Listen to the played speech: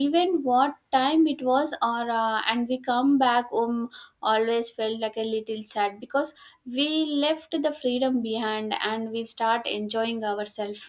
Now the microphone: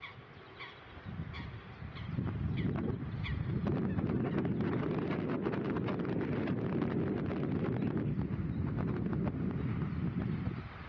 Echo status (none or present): none